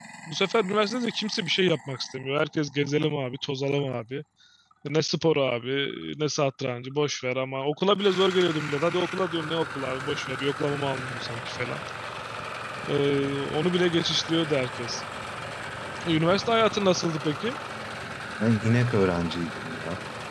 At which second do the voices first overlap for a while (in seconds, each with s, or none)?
none